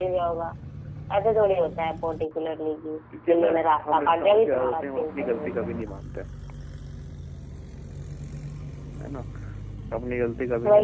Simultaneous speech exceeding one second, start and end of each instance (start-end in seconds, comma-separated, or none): 3.3-5.9